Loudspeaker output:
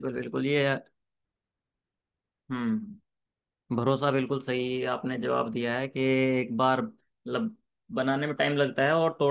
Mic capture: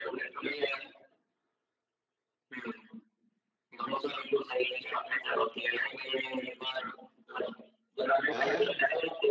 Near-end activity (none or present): present